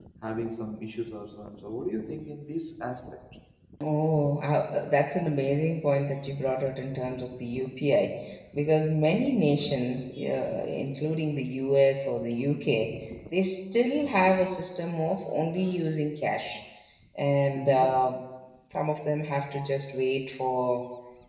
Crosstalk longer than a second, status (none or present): none